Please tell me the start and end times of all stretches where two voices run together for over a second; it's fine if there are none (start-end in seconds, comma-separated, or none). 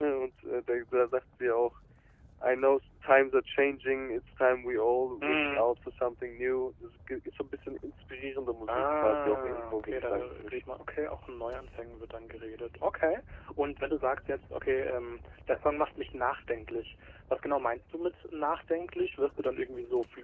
8.7-10.6